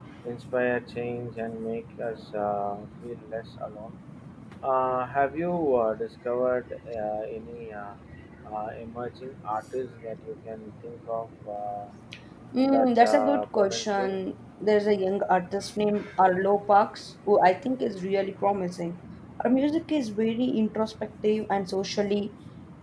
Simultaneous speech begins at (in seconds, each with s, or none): 12.7 s